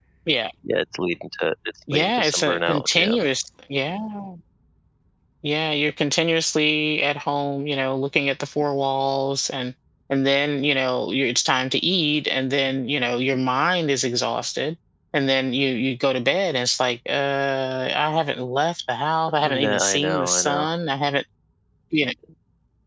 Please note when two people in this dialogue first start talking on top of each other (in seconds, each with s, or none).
1.9 s